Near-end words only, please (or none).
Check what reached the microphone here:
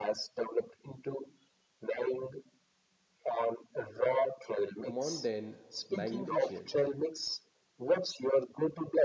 mundane magnificent.